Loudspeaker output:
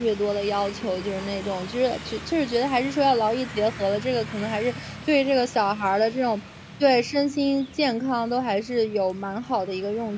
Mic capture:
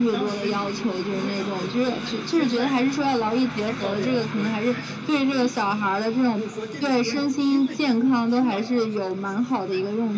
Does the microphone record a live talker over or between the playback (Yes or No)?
Yes